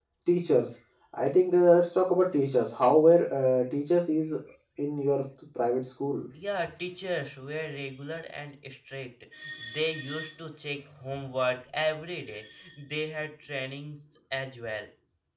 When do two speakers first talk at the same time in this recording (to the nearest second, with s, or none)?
none